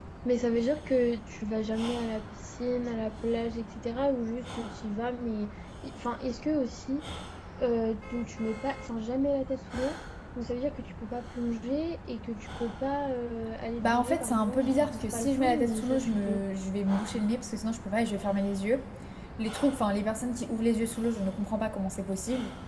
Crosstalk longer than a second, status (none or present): present